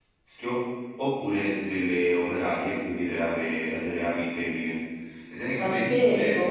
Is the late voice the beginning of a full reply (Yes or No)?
Yes